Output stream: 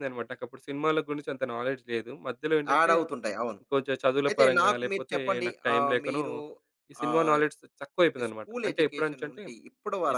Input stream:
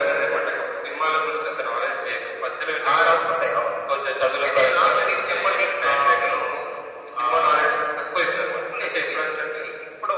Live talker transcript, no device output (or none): none